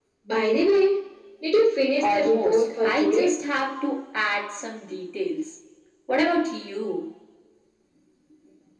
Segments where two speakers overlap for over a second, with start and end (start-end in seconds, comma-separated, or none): 2.0-3.3